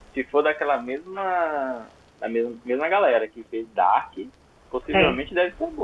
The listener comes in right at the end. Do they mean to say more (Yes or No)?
No